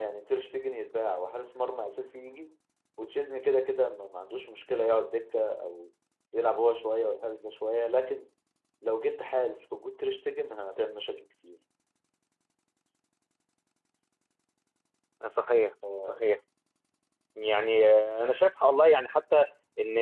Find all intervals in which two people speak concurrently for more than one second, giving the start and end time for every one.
none

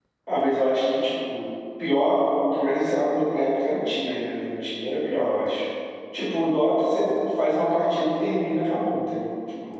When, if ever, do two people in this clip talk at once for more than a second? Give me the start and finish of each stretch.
none

